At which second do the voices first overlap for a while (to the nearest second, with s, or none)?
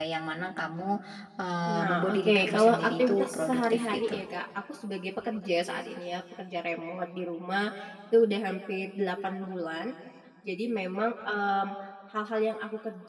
2 s